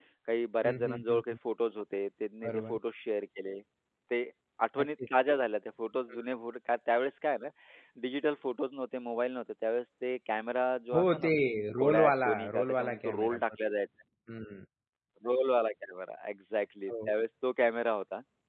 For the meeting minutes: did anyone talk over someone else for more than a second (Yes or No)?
Yes